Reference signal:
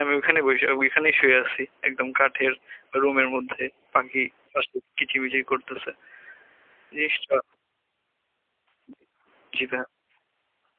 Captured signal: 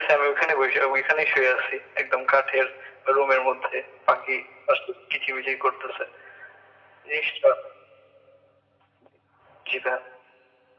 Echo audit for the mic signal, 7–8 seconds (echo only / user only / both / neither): echo only